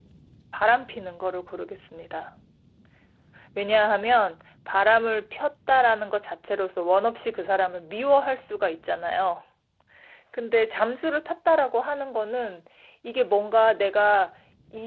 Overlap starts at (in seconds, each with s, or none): none